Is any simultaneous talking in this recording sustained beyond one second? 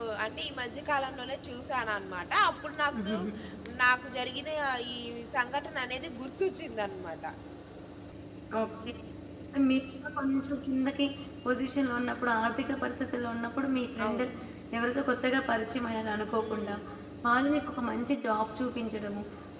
No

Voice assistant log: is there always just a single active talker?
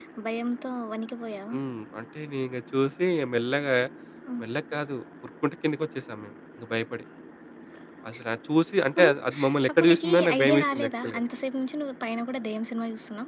No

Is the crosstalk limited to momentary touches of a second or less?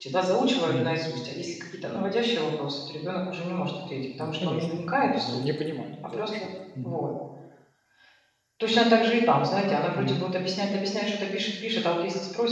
No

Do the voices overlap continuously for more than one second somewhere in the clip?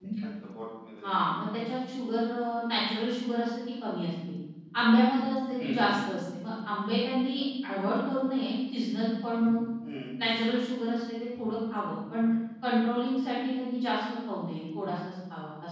No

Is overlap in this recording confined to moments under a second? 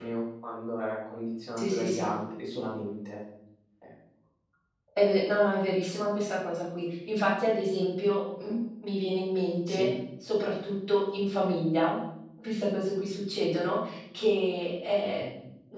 Yes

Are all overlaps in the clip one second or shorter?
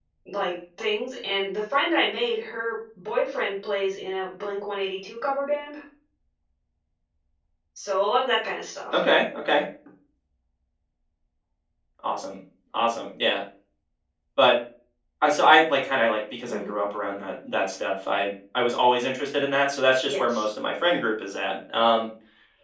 Yes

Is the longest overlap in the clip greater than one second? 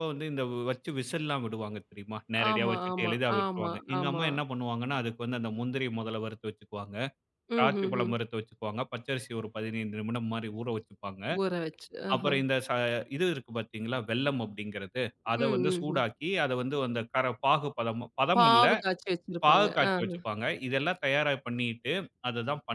Yes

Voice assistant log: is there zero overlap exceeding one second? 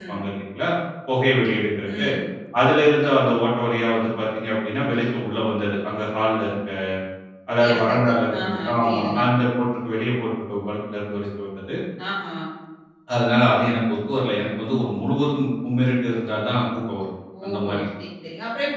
No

